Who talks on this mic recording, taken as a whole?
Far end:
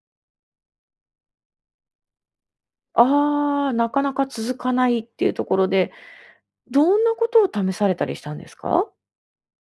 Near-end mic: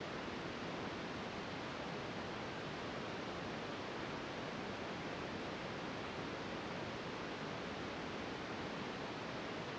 neither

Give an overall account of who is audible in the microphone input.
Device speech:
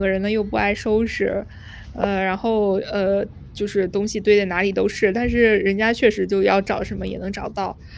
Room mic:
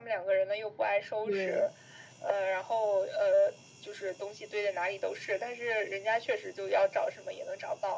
both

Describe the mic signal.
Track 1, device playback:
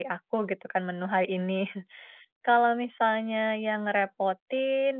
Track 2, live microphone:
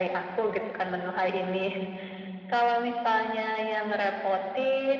echo only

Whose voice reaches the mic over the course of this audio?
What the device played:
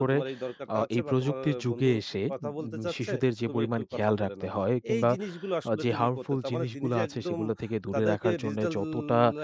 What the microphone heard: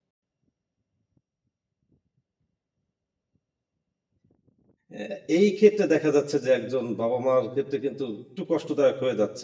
user only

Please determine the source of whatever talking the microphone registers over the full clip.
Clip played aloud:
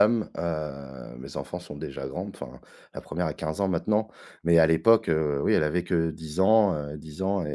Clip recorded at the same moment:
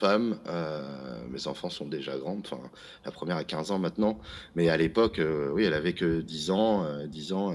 echo only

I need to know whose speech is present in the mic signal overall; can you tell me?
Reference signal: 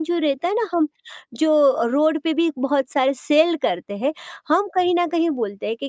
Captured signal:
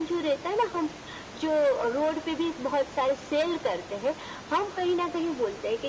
echo only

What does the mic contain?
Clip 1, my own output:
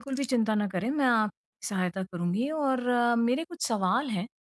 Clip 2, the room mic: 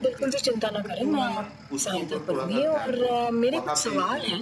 both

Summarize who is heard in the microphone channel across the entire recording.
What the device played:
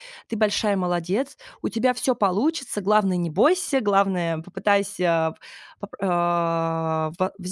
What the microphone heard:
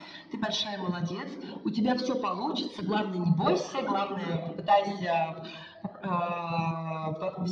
echo only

